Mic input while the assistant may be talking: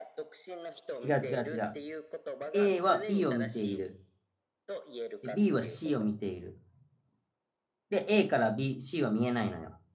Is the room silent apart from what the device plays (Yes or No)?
No